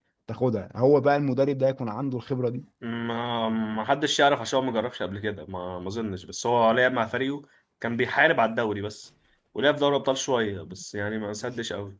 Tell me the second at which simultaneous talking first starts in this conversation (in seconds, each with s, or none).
none